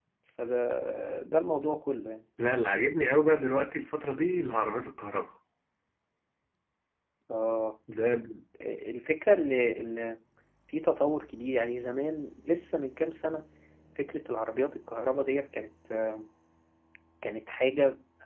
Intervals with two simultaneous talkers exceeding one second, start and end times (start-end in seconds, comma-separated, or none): none